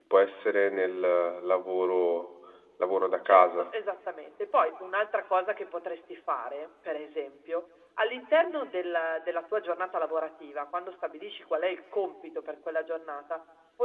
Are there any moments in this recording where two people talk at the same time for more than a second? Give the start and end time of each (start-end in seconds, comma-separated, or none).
none